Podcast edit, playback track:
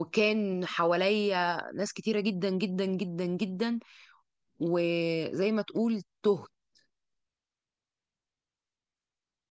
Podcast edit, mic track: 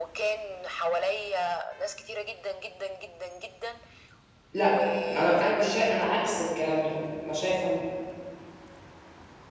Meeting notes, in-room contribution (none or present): present